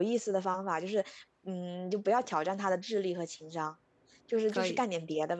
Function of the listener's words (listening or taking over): listening